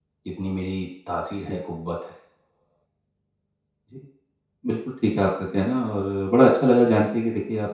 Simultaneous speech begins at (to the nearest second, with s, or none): none